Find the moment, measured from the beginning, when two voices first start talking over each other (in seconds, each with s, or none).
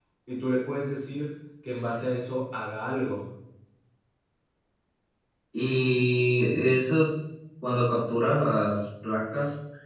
none